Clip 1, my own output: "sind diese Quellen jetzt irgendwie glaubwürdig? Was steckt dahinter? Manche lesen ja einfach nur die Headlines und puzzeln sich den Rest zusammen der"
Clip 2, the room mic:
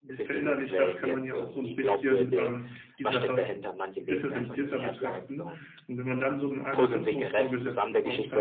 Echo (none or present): present